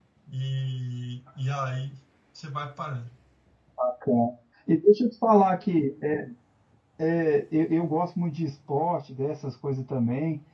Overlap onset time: none

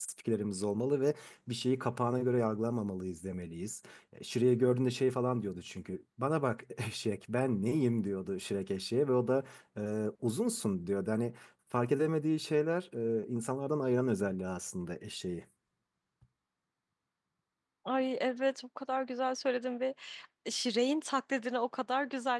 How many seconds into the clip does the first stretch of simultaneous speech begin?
none

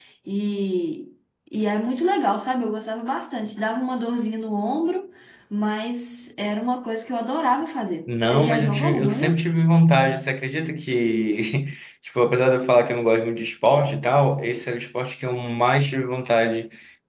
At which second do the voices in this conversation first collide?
8 s

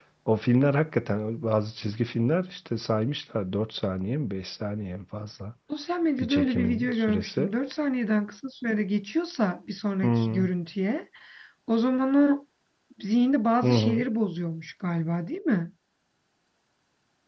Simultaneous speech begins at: 6 s

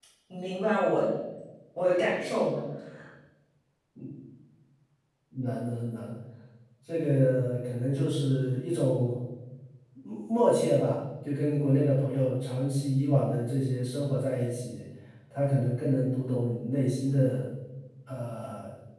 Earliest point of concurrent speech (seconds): none

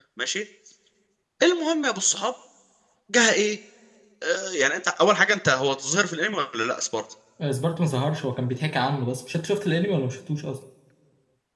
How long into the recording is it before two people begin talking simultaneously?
none

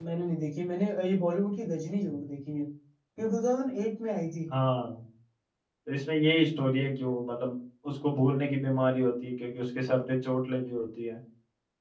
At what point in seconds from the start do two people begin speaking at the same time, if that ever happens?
none

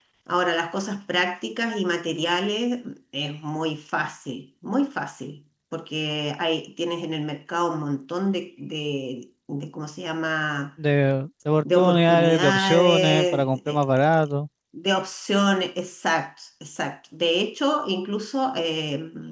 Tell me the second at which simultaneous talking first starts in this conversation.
12 s

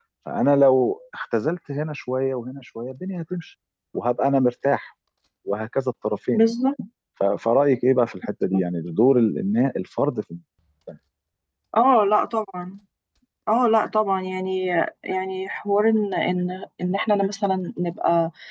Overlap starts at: none

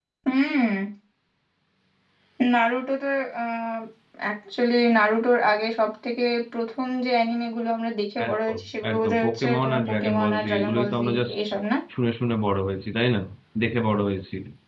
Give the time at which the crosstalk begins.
8 s

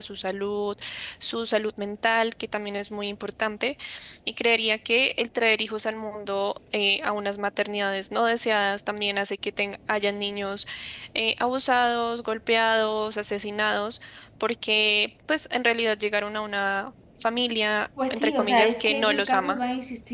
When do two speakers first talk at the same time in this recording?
18 s

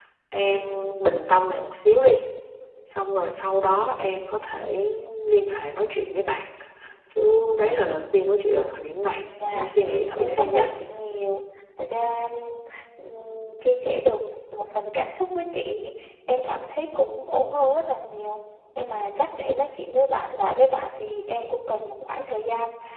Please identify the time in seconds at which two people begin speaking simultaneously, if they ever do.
9 s

